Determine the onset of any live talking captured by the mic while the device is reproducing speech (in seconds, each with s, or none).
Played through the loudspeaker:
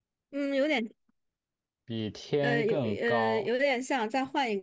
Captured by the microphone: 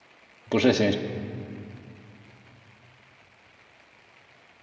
0.5 s